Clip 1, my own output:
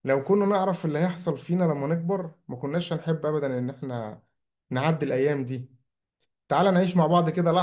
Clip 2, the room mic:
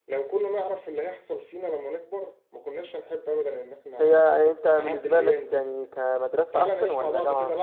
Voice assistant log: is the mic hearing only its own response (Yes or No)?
No